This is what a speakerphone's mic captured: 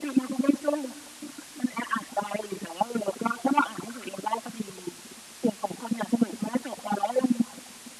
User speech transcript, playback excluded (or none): none